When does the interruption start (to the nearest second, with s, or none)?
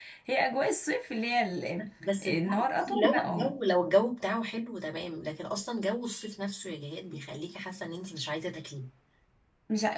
2 s